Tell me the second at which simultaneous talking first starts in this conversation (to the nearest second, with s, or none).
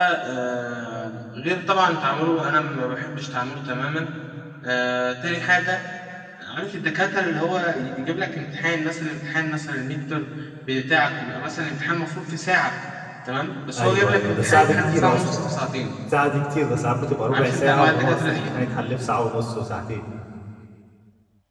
14 s